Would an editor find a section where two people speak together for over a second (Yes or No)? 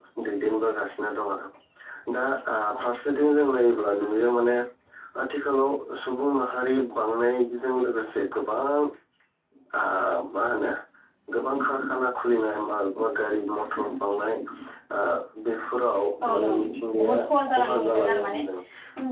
Yes